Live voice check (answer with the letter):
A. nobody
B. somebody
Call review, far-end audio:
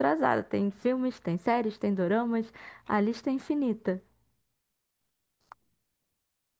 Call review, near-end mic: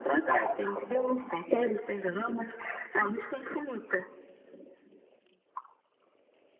A